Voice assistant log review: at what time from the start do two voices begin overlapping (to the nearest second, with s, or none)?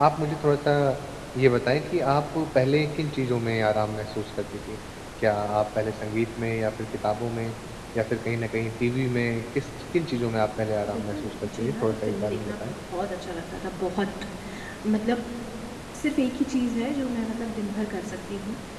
11 s